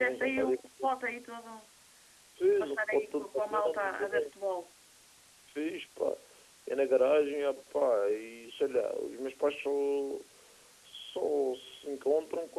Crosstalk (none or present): present